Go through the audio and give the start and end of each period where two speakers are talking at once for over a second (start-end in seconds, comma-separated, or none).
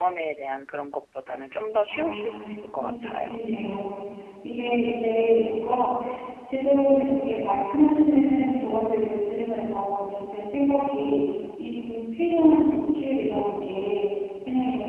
1.9-3.1